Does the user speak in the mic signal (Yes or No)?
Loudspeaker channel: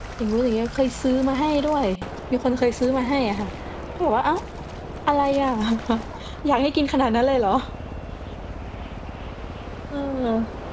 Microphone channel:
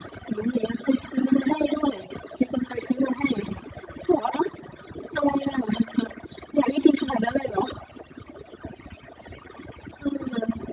No